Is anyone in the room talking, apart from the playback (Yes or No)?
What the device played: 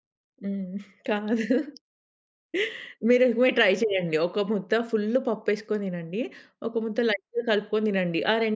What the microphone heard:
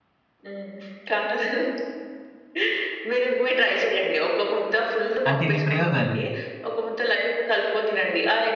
Yes